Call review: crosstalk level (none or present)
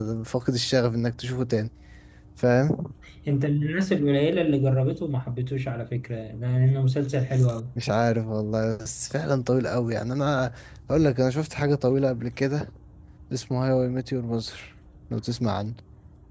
none